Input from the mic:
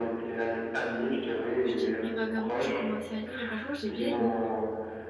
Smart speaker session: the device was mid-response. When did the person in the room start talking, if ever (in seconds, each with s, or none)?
1.2 s